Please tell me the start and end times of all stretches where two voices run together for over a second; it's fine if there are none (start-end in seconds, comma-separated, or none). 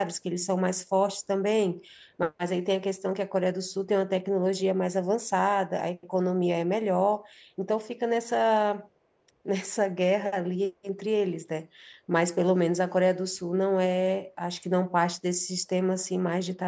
none